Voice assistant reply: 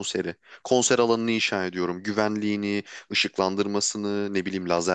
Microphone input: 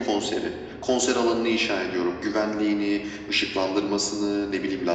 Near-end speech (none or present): none